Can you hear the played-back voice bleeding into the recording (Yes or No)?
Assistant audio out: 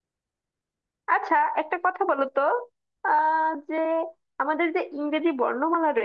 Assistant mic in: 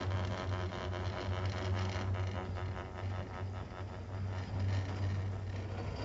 No